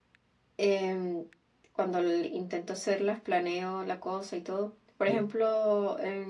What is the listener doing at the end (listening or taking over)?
listening